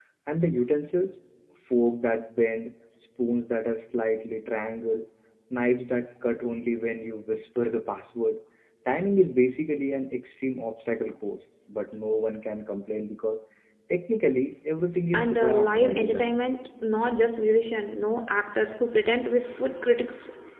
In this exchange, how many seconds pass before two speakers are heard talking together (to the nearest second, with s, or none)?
15 s